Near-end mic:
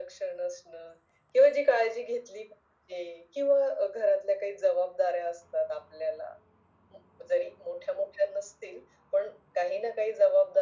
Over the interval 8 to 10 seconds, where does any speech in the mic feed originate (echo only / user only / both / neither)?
echo only